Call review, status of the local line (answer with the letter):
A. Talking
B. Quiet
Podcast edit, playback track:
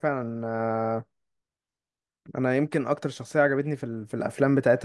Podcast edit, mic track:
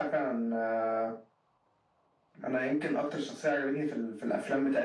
B